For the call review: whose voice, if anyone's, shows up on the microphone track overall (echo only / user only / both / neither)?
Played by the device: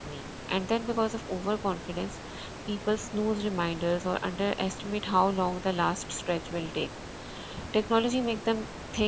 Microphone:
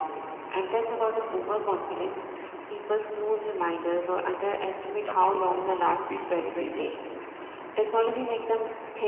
both